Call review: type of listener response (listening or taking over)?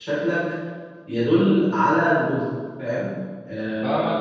taking over